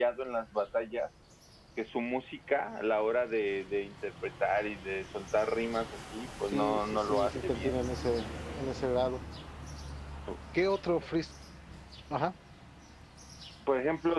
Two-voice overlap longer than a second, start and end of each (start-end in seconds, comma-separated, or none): 6.5-7.7